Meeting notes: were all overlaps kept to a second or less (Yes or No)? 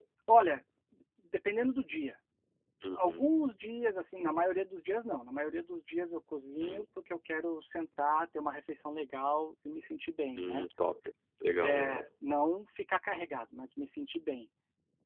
Yes